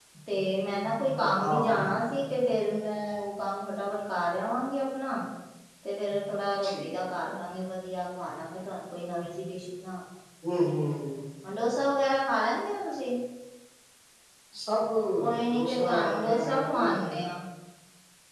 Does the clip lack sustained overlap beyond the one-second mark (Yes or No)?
No